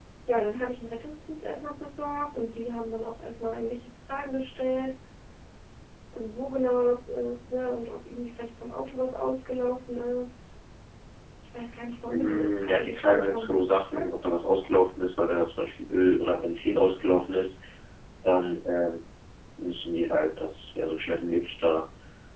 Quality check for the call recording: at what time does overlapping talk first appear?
12 s

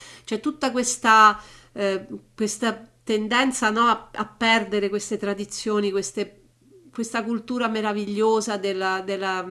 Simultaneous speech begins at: none

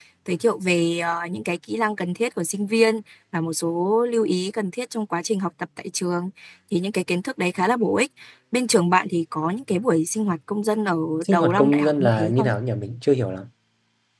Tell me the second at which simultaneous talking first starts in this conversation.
11 s

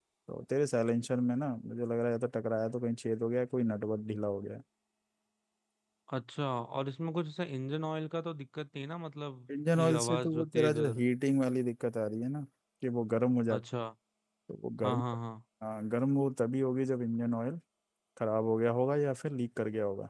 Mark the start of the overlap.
10 s

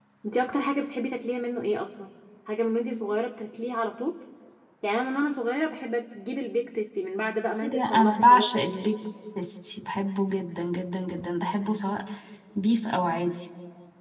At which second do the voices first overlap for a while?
8 s

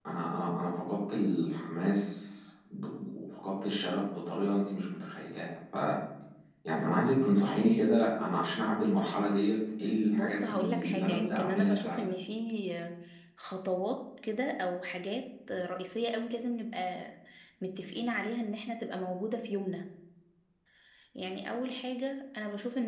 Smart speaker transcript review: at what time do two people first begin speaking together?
10 s

